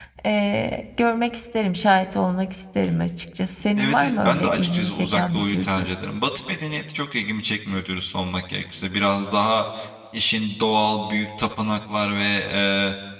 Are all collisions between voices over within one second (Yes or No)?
No